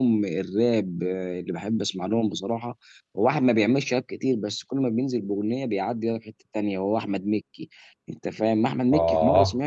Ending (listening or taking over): listening